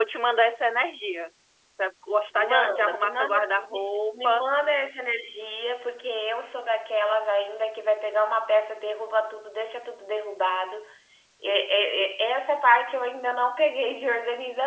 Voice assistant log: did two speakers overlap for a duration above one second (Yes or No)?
Yes